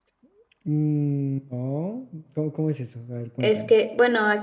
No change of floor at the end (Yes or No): No